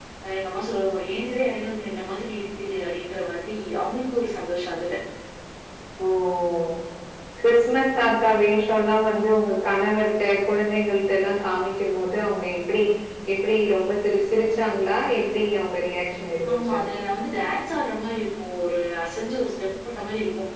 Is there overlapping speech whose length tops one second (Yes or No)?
No